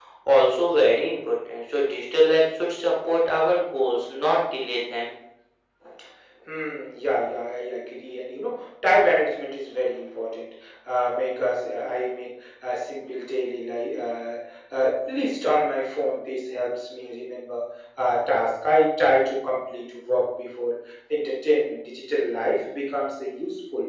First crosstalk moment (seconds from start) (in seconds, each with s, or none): none